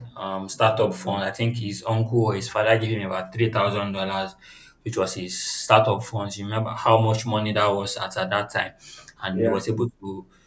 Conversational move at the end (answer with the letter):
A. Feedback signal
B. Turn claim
A